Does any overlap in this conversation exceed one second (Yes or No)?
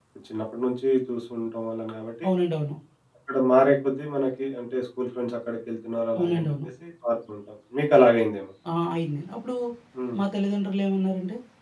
No